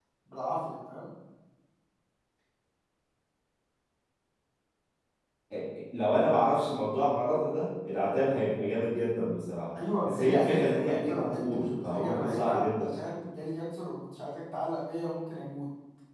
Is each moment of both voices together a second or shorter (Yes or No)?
No